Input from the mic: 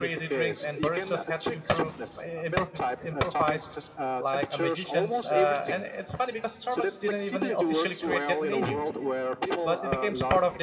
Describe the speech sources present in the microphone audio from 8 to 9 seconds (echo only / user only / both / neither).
both